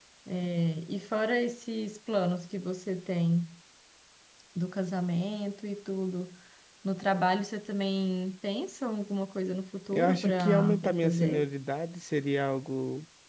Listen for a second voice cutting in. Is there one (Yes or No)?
Yes